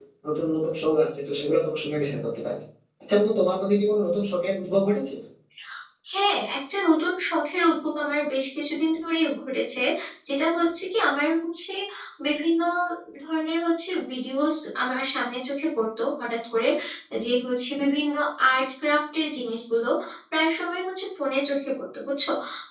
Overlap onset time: none

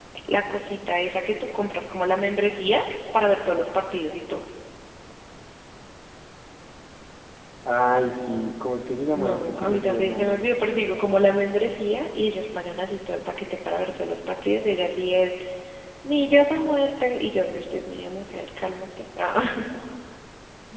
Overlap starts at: 9.2 s

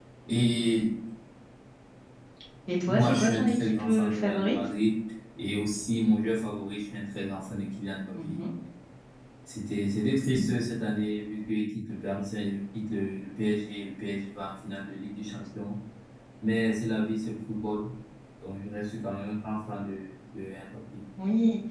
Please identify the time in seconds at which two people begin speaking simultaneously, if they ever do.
2.9 s

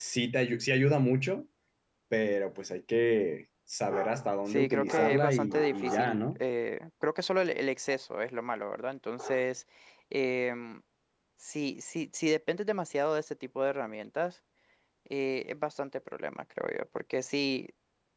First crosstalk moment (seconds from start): 4.5 s

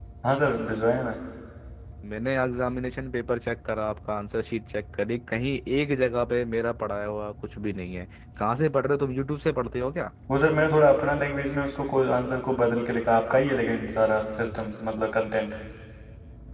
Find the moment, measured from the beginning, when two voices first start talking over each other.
none

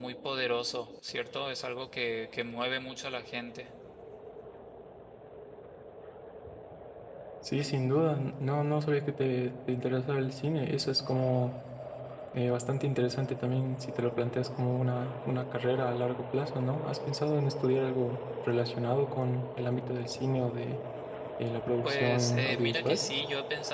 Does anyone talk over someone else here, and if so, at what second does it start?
21.8 s

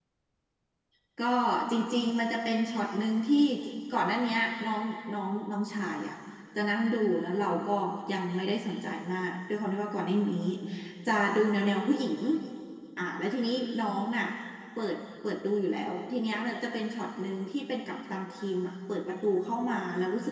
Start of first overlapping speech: none

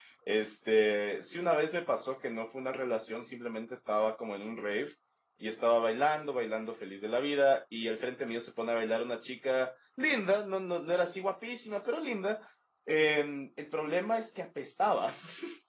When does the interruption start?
none

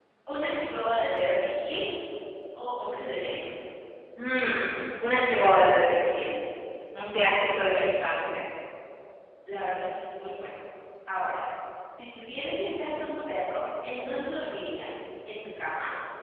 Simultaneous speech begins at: none

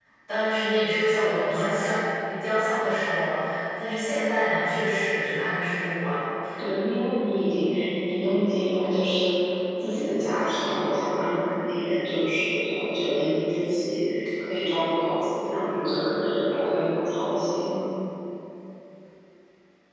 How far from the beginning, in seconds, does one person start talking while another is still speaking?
none

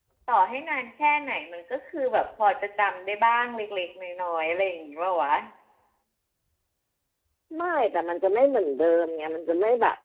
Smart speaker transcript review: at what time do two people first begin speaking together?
none

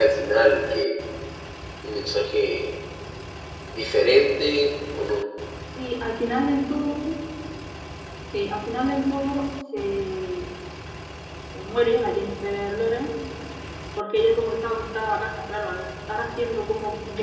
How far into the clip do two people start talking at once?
none

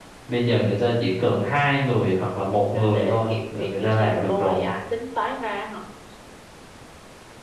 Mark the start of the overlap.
2.7 s

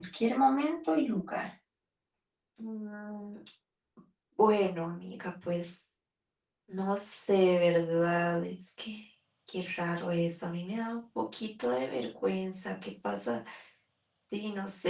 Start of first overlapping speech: none

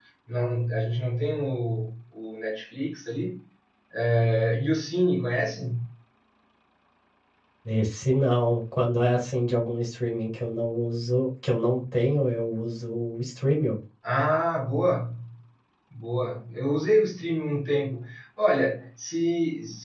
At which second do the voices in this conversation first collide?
none

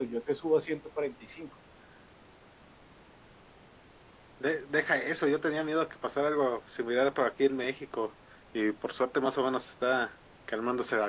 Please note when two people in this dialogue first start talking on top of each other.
none

